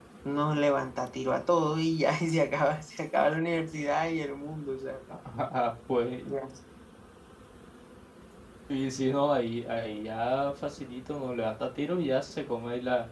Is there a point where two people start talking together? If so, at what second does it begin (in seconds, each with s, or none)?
none